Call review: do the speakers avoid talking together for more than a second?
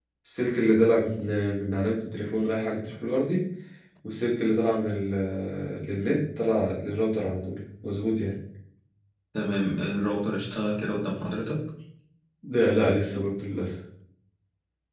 Yes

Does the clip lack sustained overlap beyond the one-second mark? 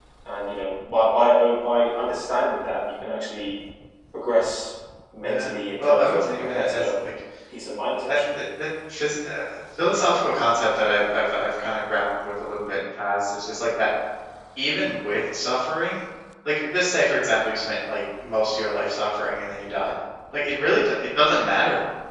No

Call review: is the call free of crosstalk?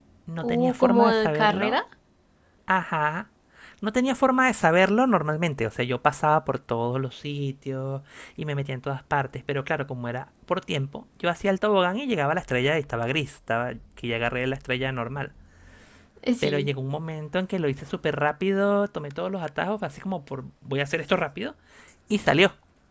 No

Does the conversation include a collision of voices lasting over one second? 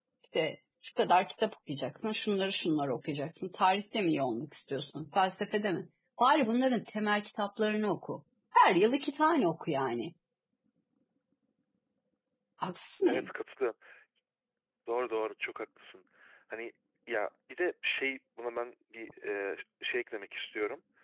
No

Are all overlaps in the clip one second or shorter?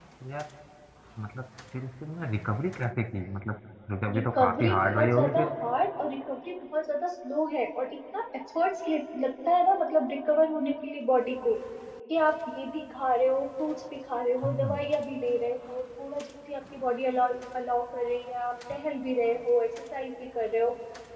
No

